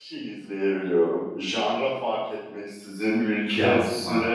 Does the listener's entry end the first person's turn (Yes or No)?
No